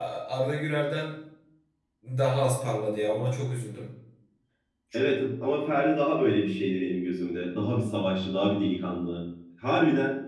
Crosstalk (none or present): none